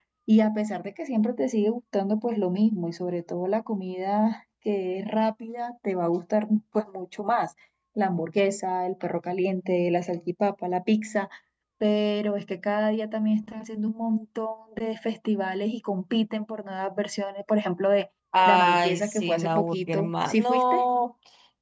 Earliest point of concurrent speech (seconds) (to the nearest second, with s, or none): 18 s